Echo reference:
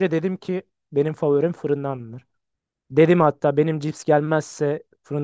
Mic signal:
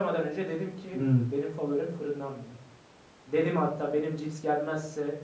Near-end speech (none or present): present